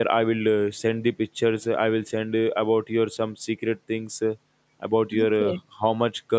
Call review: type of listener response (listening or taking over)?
listening